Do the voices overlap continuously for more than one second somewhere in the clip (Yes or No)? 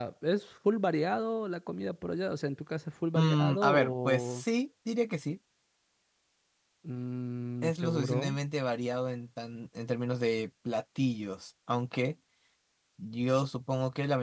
Yes